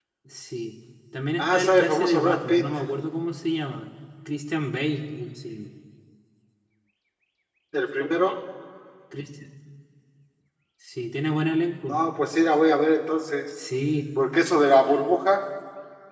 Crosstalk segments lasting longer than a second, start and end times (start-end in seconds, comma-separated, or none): 1.4-2.7